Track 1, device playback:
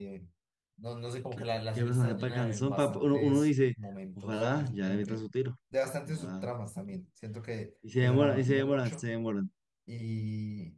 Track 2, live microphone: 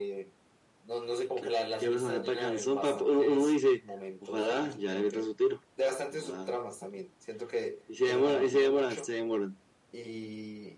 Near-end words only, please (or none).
none